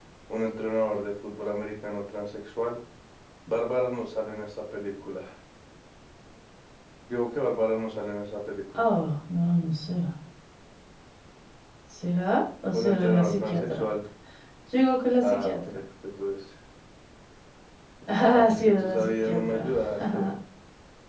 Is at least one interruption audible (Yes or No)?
Yes